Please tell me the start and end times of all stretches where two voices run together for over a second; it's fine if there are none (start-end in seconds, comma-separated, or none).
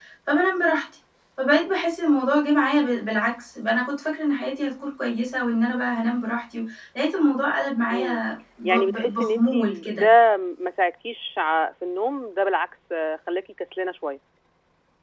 8.6-10.1